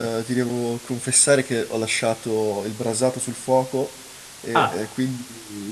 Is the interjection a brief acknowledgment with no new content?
Yes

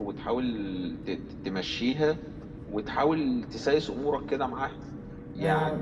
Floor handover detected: Yes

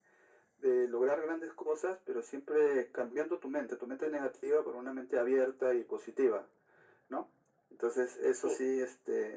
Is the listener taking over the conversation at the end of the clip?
No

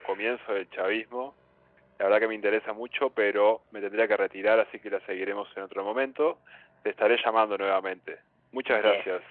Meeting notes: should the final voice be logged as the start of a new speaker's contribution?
Yes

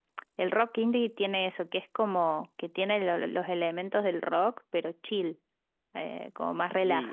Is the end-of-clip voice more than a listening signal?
Yes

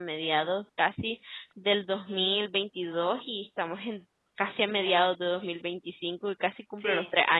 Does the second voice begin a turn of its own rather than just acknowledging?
Yes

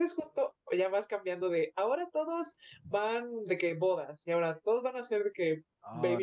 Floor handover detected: Yes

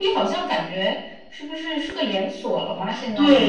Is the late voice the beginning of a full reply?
Yes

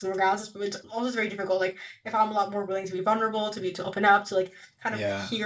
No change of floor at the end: Yes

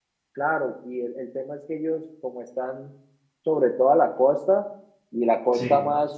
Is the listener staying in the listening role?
Yes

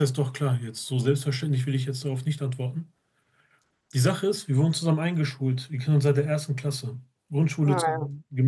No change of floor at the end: Yes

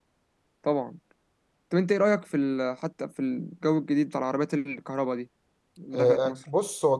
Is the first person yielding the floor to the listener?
Yes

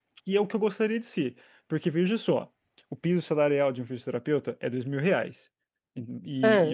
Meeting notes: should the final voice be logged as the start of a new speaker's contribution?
No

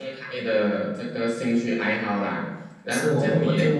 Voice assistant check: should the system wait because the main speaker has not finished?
No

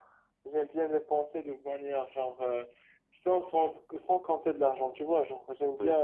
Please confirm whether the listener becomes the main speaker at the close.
No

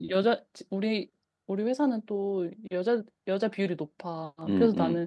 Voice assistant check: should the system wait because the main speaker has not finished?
Yes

